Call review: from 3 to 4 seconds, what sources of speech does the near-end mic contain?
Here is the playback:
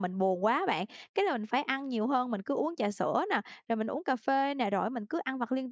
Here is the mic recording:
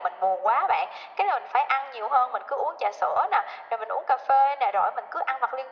echo only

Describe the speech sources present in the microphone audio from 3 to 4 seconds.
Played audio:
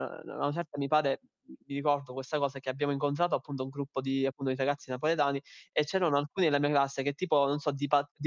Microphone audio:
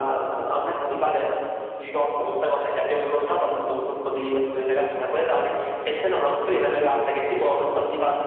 echo only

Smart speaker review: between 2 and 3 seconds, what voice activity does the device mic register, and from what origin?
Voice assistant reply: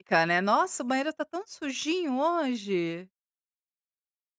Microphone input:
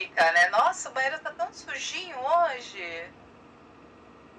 echo only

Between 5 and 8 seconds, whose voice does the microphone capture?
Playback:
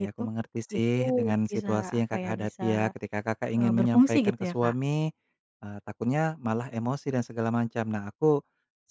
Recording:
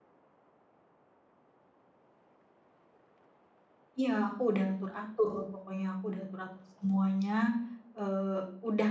user only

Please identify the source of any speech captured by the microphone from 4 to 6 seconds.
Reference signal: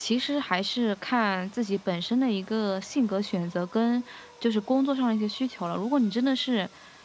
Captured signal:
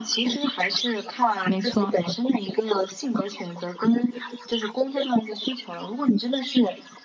echo only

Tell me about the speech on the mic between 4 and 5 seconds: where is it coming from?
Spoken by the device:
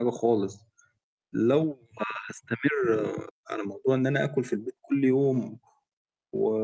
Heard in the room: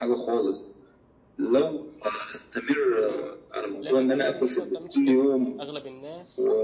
both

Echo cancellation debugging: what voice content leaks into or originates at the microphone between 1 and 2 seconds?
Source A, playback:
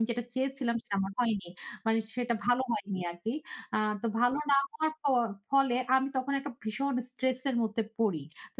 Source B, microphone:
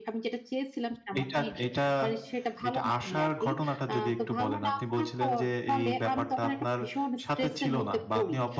both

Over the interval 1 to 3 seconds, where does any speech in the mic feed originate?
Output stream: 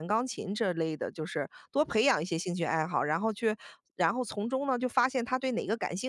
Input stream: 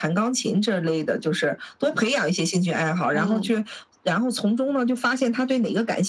echo only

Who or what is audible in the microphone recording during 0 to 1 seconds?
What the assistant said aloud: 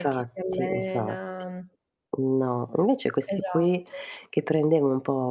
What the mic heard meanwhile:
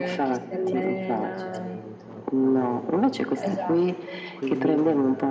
both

